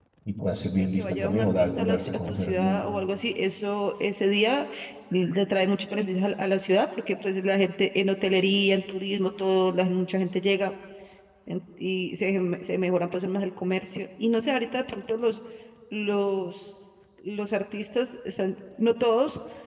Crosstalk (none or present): present